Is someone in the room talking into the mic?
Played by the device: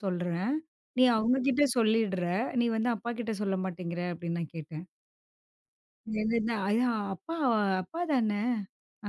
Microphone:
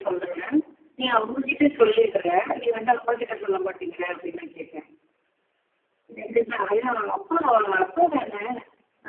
No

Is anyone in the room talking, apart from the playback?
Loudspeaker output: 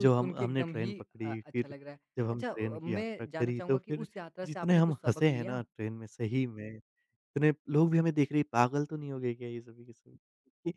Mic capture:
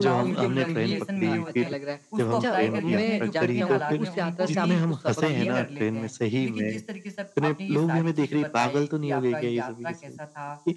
Yes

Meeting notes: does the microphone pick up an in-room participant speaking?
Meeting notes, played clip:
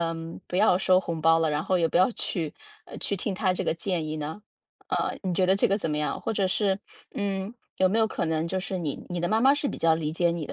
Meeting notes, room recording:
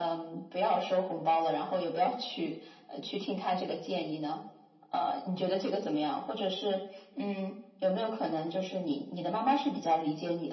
No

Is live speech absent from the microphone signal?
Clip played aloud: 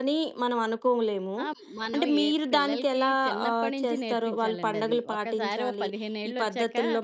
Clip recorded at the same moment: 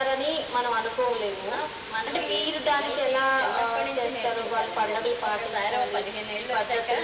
Yes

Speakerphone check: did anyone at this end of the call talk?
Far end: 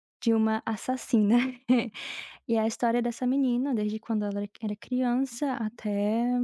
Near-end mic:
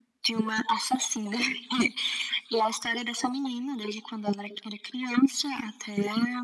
No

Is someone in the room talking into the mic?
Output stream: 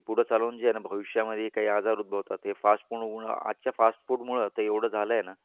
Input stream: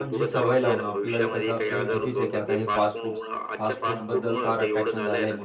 Yes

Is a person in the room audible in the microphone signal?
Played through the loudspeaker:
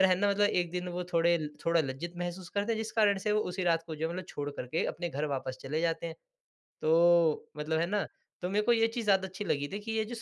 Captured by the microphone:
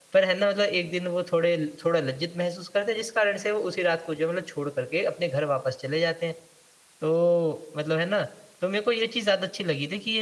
No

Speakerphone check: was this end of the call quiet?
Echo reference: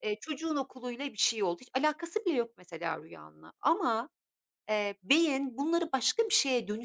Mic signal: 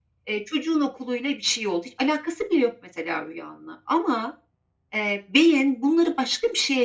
Yes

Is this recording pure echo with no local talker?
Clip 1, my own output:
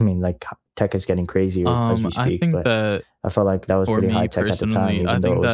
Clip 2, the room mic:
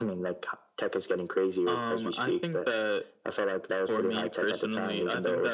Yes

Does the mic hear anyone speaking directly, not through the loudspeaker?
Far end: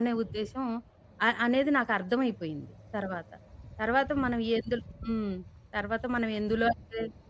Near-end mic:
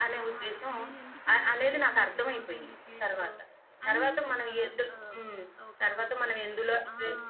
Yes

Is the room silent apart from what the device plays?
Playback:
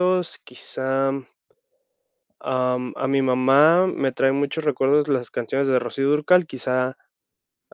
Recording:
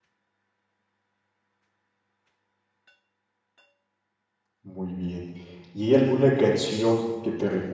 No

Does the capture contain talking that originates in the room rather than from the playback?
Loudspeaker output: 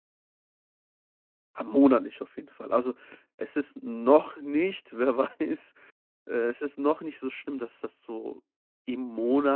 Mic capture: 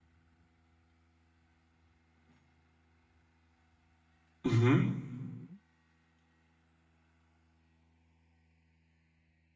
Yes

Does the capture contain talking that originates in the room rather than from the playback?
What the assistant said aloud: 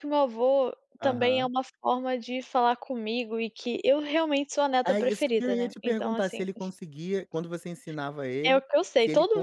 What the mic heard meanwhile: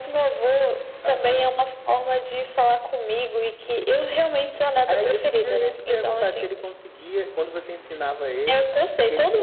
No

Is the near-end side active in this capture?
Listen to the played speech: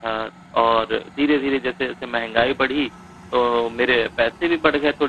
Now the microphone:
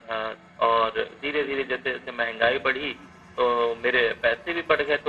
No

